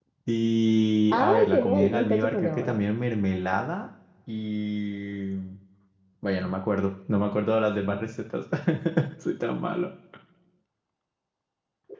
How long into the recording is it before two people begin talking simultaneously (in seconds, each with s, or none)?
1.1 s